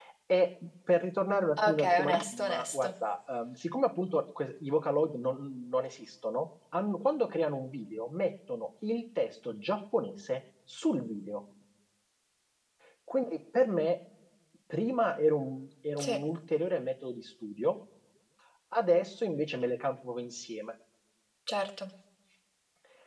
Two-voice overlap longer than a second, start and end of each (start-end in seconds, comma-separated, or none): 1.6-2.9